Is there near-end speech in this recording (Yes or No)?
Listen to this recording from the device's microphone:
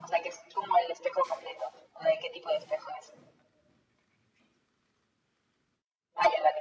No